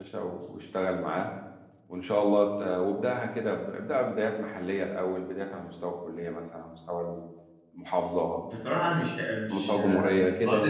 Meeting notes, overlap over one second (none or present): present